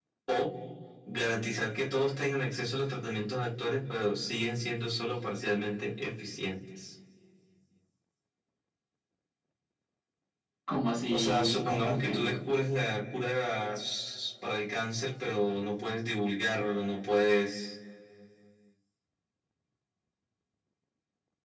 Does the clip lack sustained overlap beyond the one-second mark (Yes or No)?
No